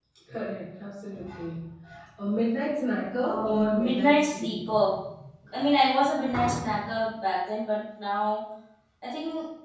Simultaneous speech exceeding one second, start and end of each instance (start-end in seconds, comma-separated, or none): 3.2-4.9